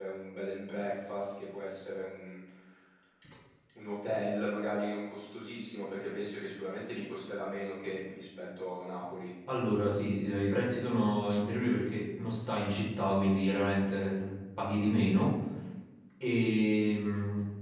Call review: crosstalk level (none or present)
none